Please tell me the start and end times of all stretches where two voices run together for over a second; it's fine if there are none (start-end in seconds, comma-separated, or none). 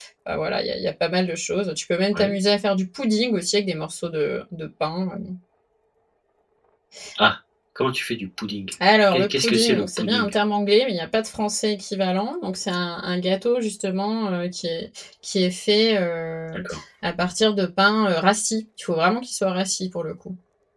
9.1-10.4